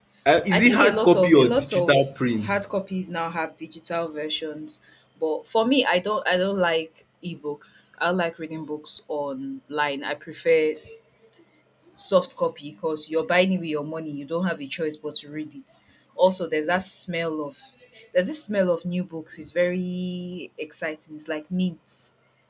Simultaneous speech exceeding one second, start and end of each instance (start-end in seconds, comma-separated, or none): 0.5-2.0